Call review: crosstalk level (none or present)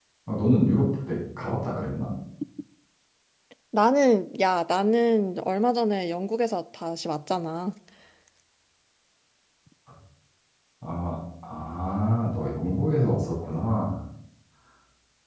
none